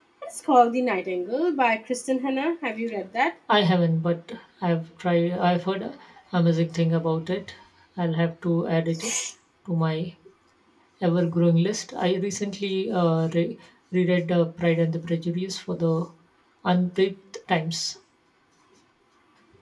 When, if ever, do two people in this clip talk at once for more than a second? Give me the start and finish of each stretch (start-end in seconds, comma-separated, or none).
none